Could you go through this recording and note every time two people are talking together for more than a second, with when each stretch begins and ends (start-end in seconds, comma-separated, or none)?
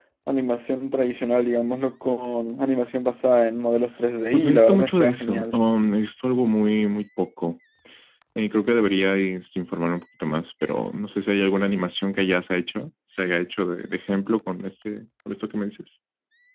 4.3-5.6